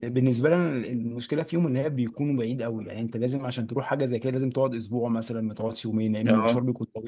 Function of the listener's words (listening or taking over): taking over